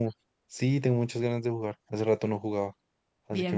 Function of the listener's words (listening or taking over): taking over